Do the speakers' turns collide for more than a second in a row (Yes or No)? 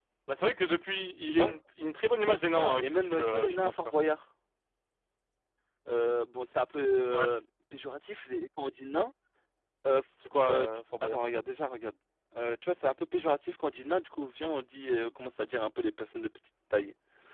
Yes